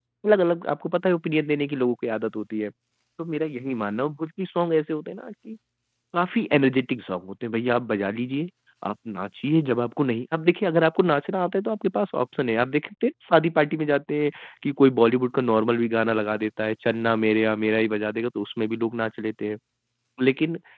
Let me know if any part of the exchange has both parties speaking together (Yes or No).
No